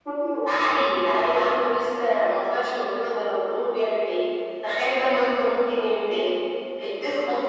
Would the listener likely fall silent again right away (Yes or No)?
Yes